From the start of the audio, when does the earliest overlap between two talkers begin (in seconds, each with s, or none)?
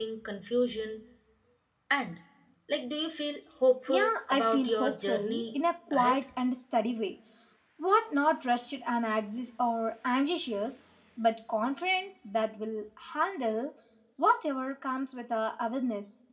3.9 s